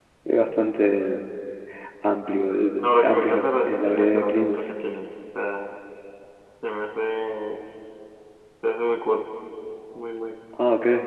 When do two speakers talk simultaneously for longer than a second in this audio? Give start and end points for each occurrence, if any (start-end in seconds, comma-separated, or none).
2.8-4.7